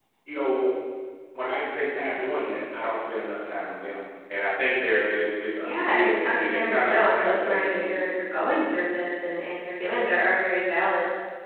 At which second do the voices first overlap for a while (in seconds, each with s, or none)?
5.6 s